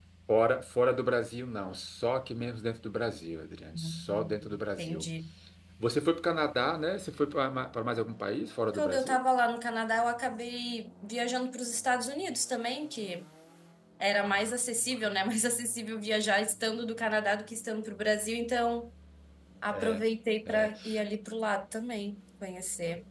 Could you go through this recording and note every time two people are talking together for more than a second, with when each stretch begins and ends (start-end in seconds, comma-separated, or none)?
3.7-5.0